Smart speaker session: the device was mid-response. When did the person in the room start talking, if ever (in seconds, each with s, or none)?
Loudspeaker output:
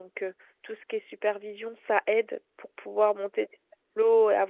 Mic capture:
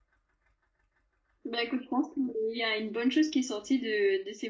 1.4 s